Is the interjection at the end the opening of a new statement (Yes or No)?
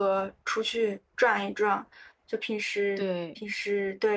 No